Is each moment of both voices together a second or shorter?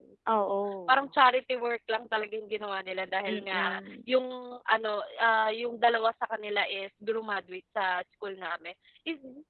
Yes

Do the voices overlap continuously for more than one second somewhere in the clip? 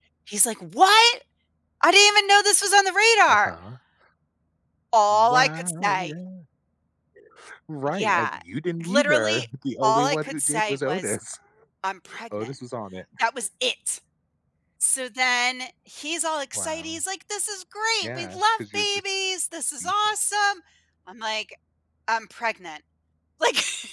Yes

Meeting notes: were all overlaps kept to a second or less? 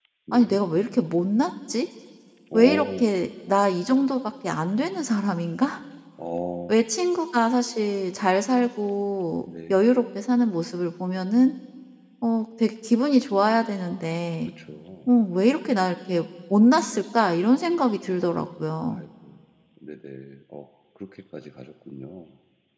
Yes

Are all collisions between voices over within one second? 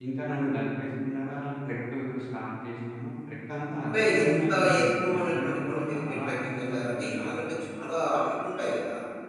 No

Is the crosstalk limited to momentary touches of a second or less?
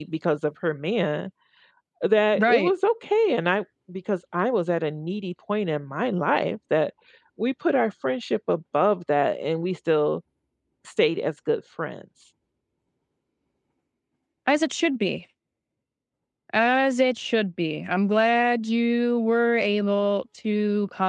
Yes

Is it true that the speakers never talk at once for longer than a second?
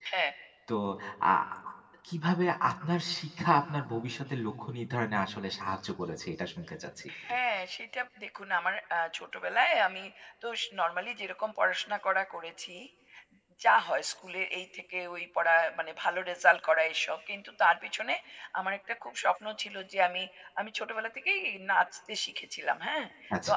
Yes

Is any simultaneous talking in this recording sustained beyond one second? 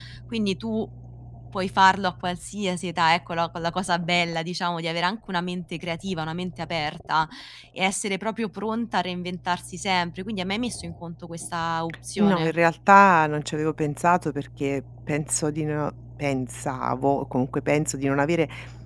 No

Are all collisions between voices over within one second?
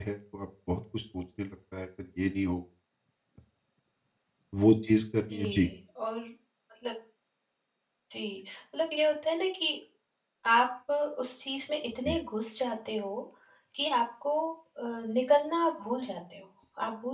Yes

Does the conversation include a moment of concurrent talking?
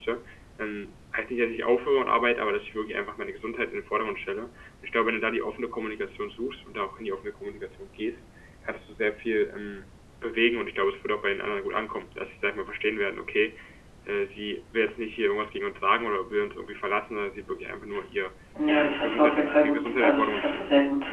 Yes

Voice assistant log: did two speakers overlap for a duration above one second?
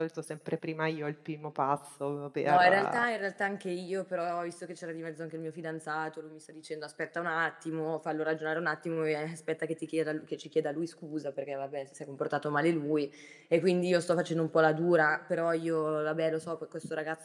No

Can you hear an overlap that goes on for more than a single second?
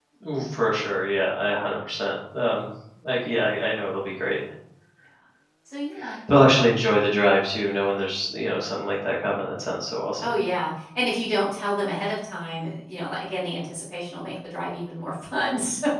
No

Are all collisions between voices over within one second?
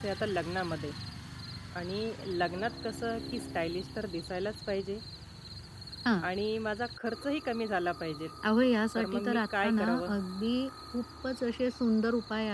No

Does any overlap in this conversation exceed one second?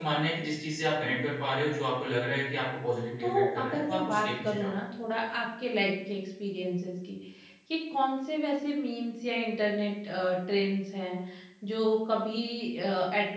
Yes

